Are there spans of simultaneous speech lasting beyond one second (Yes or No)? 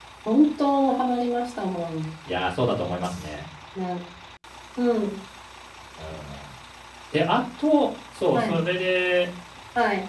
No